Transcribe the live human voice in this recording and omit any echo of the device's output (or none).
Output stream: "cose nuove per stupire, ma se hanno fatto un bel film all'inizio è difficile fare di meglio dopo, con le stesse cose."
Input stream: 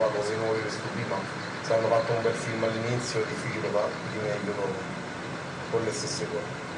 none